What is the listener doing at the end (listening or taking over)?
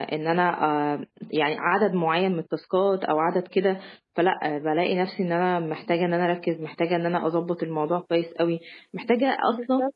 listening